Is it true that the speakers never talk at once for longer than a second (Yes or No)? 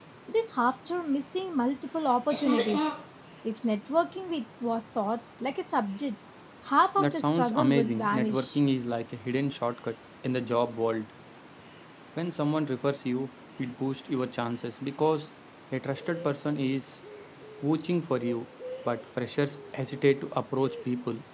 No